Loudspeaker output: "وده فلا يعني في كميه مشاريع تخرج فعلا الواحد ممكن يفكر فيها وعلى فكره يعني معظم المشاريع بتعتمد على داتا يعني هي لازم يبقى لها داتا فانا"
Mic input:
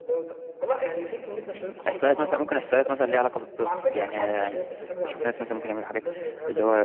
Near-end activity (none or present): present